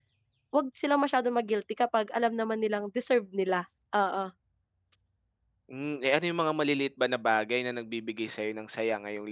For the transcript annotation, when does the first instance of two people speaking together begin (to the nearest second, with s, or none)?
none